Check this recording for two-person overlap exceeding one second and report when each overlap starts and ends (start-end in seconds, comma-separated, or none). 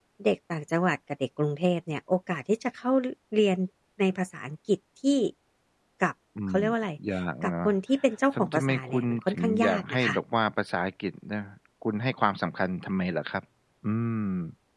8.4-10.2